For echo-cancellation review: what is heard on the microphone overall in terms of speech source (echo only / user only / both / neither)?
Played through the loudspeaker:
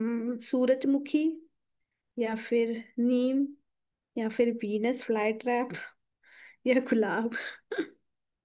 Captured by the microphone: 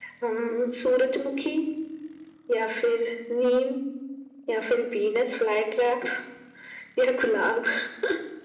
echo only